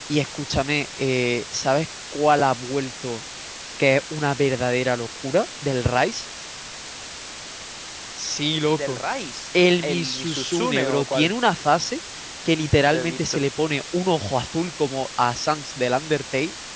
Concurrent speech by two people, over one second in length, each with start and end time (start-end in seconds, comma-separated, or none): 9.8-11.3